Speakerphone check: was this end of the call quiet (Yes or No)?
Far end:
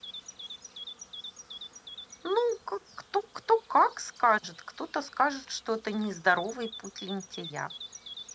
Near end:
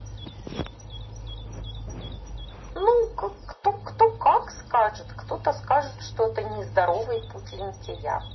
Yes